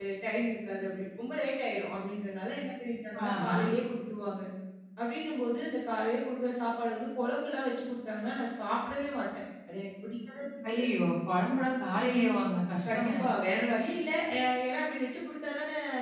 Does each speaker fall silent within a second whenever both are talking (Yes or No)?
Yes